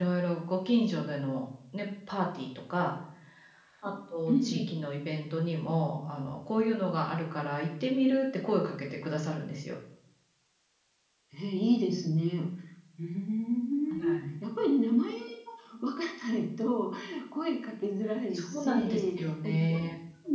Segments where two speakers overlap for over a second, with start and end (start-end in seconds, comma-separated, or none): 18.3-19.6